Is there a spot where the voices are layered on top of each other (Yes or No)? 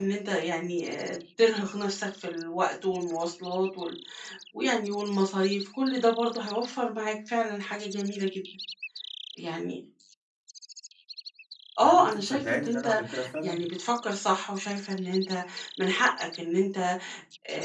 Yes